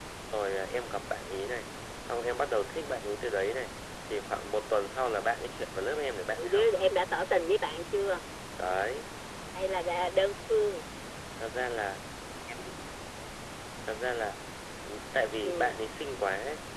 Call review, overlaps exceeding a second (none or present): none